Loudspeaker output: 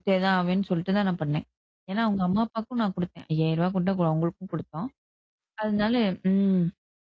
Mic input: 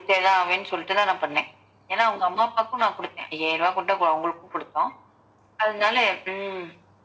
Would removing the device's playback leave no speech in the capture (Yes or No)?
Yes